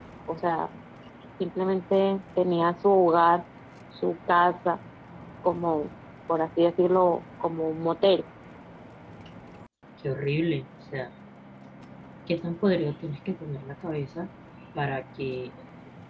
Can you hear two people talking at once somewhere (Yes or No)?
No